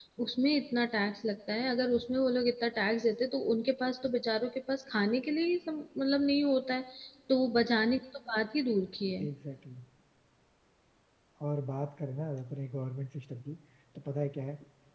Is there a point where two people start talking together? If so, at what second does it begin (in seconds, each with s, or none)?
none